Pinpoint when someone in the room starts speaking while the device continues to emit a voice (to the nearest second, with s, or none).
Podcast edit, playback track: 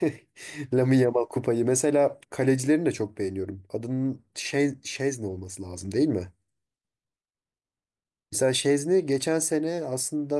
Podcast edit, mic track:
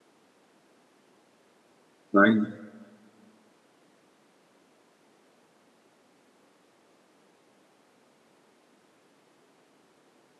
2 s